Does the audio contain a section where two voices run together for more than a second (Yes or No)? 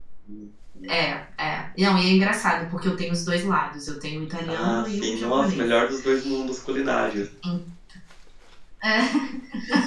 Yes